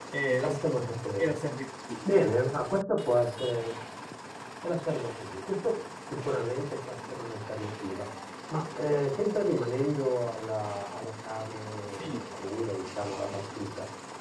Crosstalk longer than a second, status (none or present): none